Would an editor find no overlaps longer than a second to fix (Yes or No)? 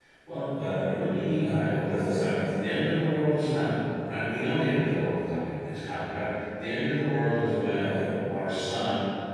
No